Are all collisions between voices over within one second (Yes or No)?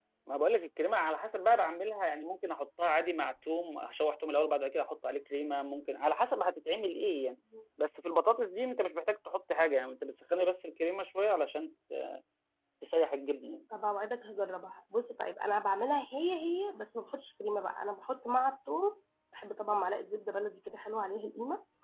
Yes